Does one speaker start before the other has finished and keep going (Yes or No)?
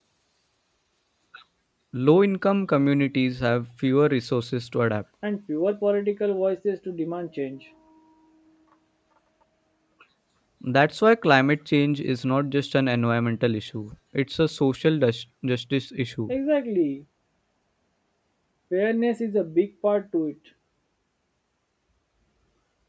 No